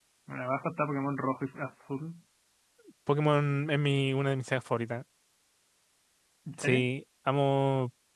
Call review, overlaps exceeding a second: none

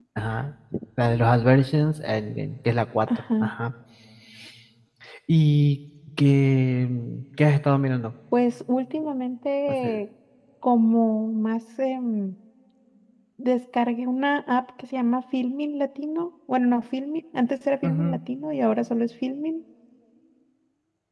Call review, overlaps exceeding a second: none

